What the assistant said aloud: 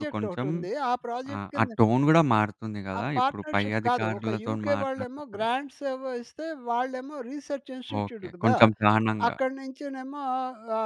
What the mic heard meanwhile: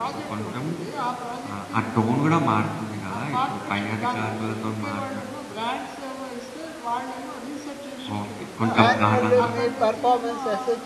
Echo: present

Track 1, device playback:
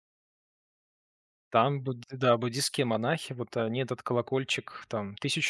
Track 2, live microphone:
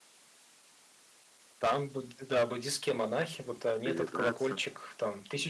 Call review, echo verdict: present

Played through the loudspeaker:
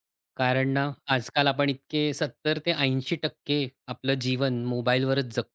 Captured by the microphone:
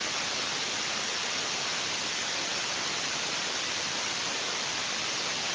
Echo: none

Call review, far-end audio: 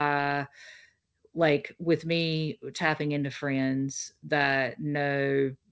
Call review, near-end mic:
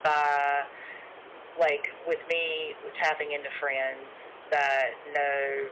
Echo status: present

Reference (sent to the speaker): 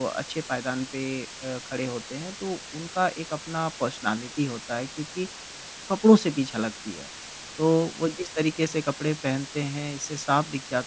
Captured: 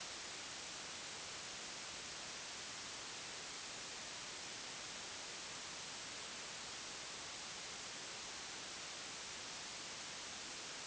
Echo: none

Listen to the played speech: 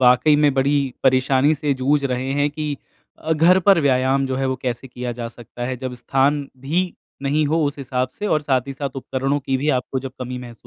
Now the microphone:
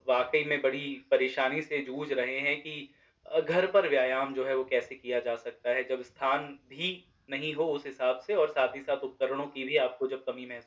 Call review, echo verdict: present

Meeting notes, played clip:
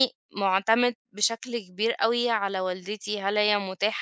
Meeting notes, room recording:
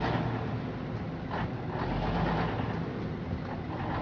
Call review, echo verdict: none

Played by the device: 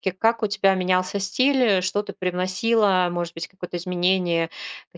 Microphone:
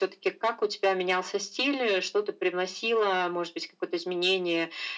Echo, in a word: present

